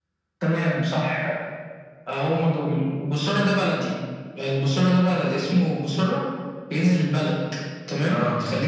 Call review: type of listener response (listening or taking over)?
listening